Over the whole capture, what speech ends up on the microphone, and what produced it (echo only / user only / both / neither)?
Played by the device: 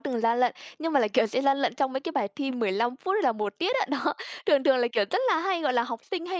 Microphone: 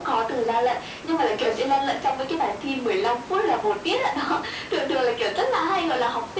echo only